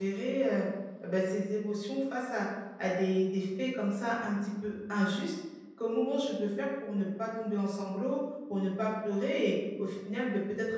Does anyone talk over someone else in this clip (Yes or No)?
No